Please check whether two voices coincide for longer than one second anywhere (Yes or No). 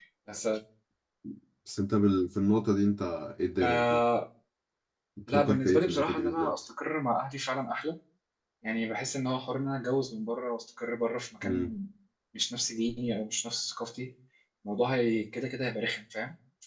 Yes